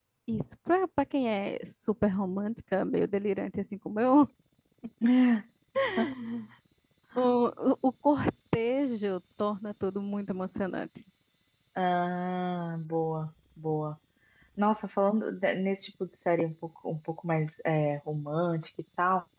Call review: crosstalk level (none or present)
none